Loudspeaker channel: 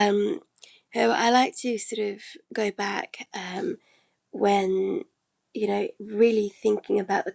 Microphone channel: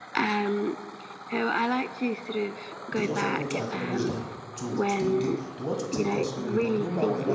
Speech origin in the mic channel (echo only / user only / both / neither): both